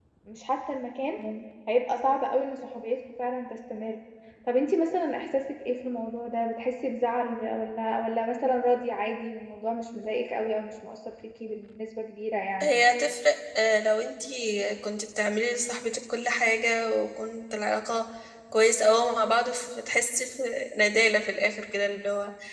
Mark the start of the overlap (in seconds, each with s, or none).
none